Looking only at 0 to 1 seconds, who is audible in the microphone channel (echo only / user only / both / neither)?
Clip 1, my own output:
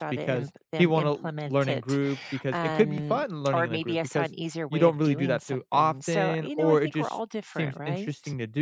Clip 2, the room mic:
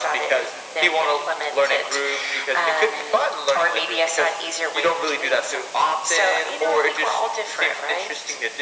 echo only